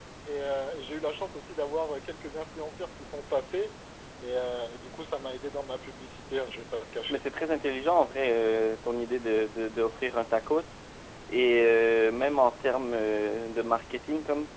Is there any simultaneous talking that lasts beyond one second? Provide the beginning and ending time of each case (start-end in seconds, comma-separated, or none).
none